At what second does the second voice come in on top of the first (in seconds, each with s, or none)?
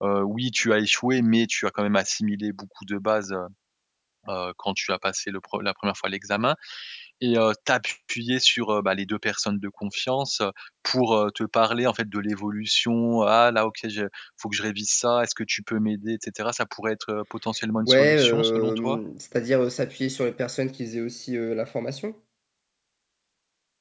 17.8 s